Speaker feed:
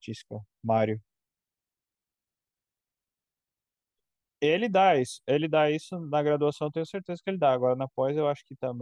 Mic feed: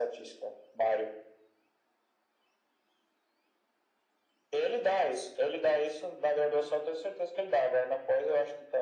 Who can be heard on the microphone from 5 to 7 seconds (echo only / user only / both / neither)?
echo only